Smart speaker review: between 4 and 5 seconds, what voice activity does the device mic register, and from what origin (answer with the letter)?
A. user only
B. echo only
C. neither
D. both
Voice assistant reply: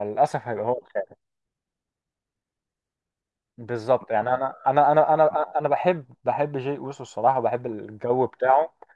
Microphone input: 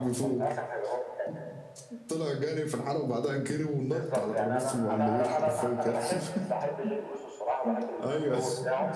D